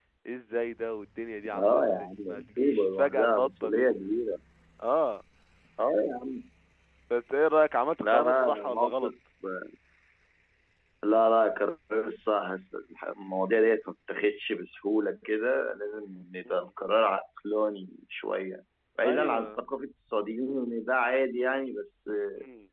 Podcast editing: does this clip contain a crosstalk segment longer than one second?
Yes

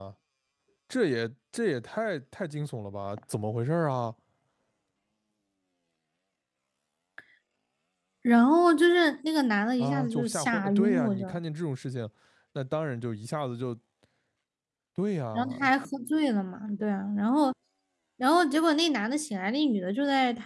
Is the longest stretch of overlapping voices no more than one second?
No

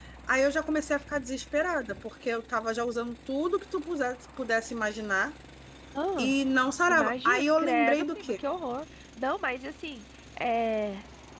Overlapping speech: Yes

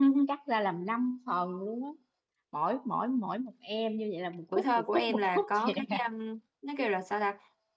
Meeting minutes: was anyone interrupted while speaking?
Yes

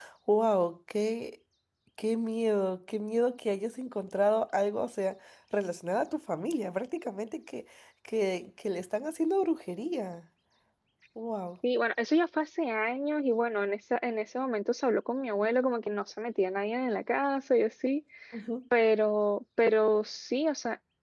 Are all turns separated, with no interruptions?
Yes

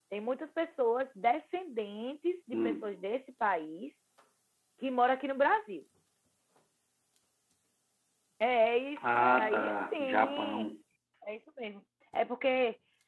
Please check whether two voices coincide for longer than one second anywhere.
Yes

